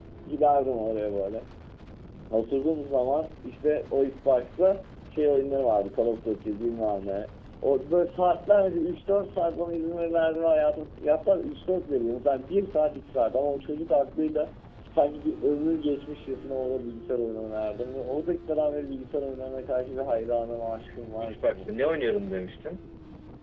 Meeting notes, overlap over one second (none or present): none